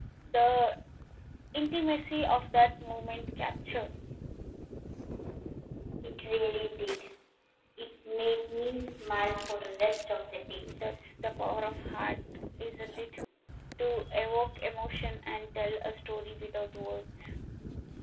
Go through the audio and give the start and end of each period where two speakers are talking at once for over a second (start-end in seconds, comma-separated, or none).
none